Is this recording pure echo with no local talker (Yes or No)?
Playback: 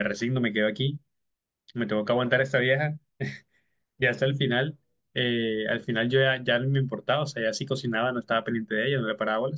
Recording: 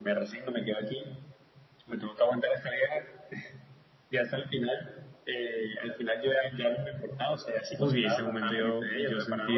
No